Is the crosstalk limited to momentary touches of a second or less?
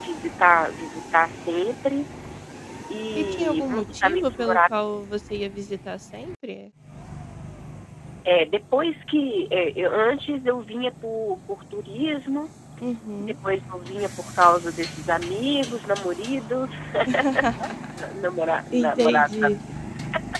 No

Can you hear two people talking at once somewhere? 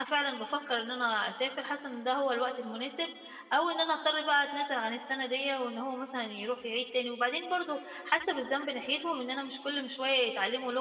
No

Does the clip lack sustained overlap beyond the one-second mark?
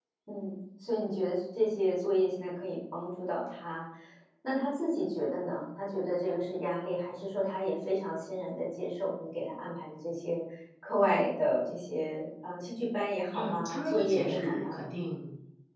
No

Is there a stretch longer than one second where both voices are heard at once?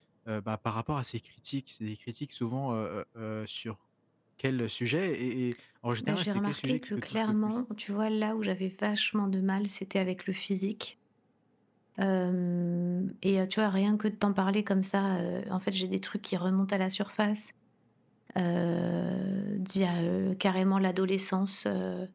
Yes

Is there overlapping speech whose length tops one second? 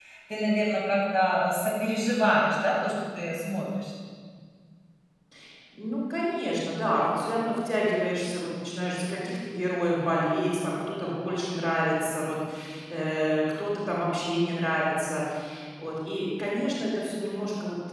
No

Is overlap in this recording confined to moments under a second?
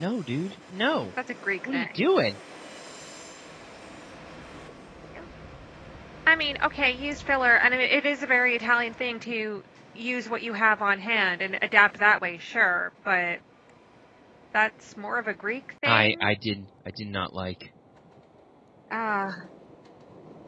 Yes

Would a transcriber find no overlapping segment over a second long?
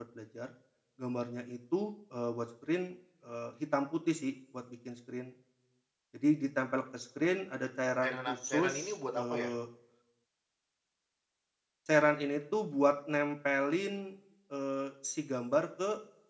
No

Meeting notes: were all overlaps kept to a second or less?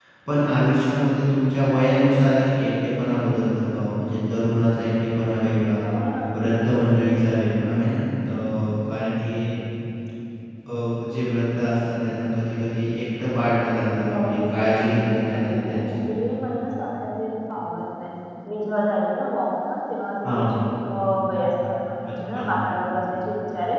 No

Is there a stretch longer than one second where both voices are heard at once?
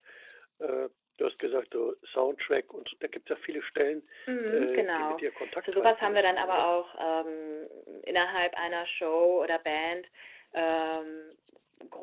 Yes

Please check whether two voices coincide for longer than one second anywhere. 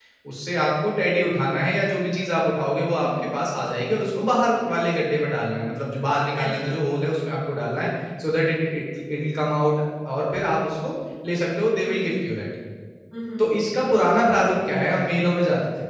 No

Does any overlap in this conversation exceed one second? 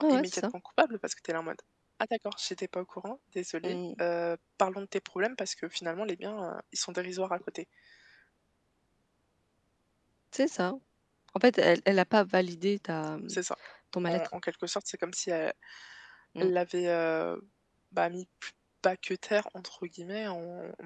No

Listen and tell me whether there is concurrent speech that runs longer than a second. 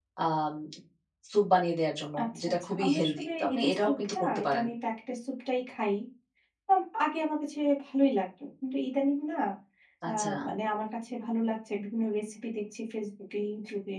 Yes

